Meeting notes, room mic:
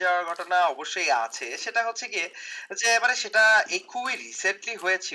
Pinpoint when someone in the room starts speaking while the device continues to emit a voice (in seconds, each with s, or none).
none